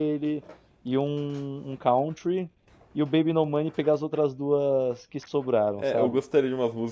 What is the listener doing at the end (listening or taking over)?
taking over